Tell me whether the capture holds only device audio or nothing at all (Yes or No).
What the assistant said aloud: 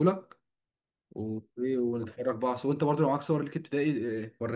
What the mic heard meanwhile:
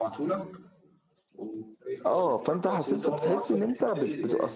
No